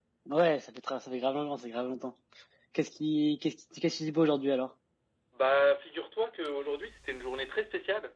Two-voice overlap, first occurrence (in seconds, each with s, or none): none